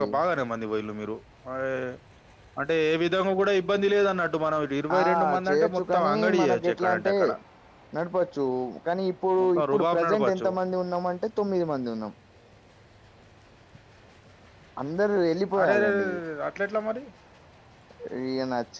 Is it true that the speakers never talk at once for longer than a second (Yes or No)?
No